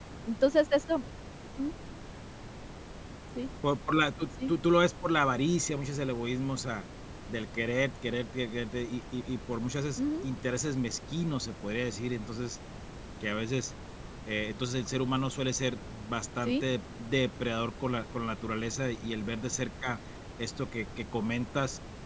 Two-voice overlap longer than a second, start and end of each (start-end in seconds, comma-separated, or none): none